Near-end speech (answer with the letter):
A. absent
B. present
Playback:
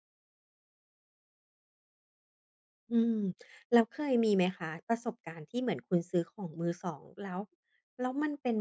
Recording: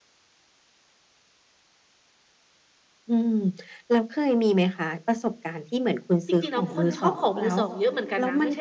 B